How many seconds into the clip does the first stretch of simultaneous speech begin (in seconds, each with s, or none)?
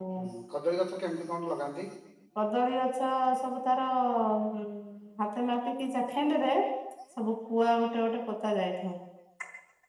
none